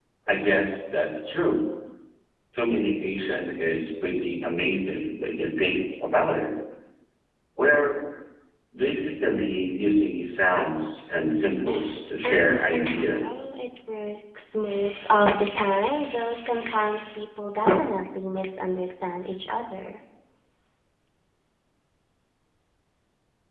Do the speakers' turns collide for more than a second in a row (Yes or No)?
Yes